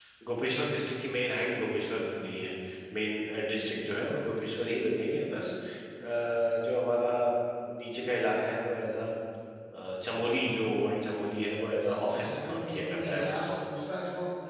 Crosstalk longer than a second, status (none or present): present